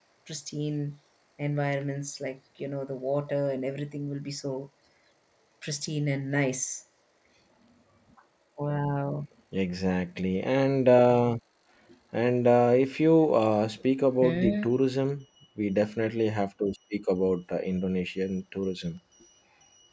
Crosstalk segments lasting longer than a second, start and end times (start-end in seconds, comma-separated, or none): none